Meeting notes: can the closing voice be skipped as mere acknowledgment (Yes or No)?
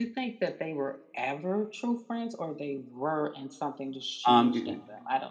No